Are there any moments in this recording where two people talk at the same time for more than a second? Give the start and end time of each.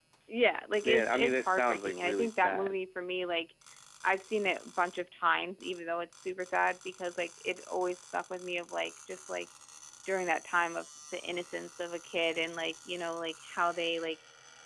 0.8-2.8

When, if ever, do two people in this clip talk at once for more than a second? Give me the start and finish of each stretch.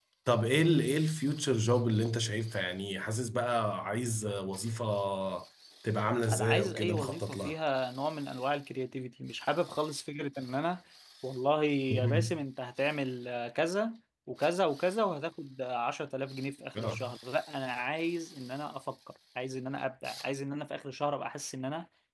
6.3-7.5

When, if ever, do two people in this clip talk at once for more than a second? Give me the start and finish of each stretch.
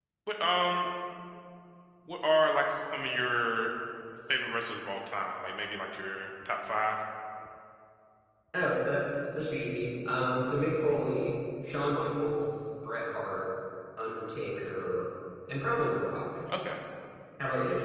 none

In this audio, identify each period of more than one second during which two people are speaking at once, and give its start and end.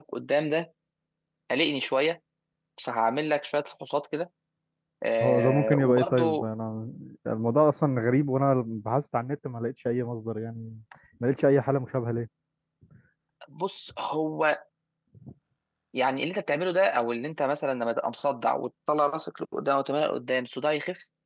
5.2-6.4

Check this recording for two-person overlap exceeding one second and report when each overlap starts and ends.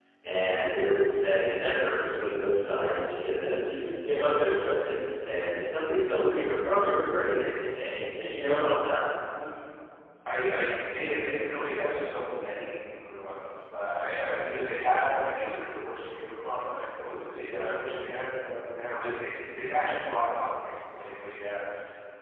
none

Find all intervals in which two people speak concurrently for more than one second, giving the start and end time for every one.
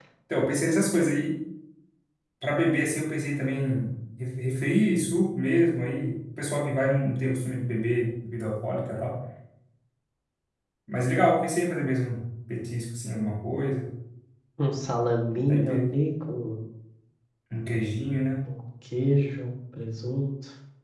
none

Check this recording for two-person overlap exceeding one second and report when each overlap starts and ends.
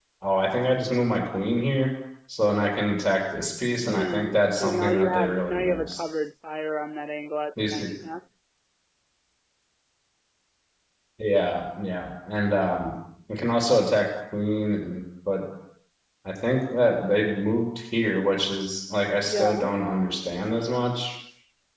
3.8-6.0

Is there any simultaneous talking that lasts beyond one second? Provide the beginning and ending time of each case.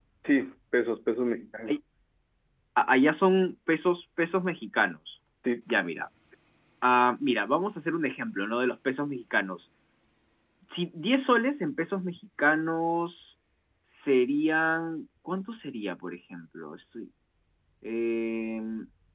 none

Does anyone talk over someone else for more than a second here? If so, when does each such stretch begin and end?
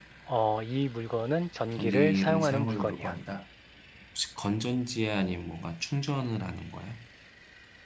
1.7-3.2

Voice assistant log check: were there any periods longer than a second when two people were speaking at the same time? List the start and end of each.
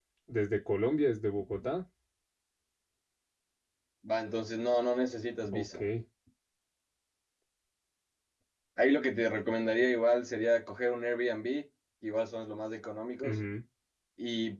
none

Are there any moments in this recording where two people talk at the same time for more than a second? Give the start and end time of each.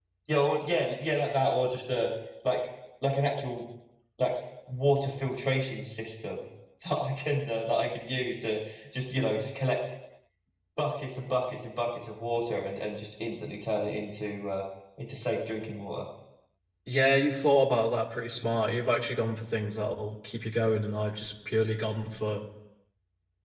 none

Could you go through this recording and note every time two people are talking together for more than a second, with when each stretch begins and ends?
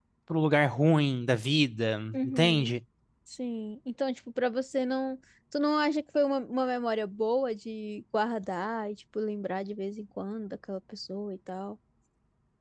none

